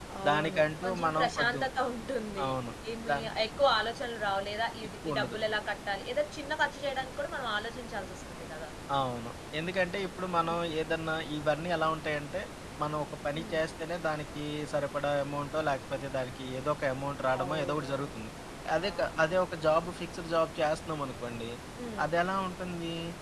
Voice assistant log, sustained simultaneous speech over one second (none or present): present